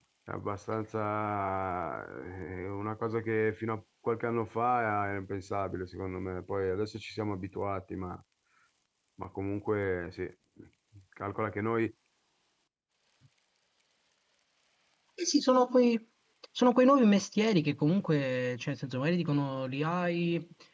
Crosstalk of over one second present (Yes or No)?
No